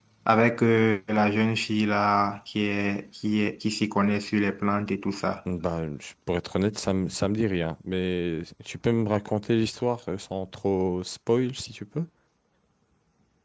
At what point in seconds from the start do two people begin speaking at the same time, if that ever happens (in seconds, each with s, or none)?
none